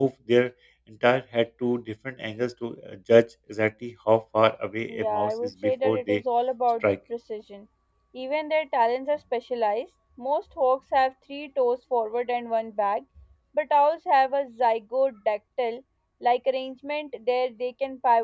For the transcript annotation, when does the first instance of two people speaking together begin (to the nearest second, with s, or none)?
5 s